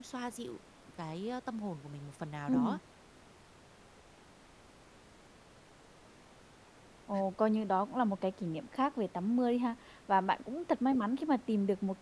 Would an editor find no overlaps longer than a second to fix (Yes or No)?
Yes